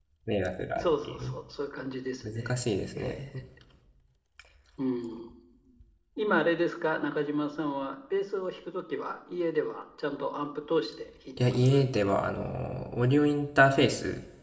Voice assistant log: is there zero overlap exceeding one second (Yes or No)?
Yes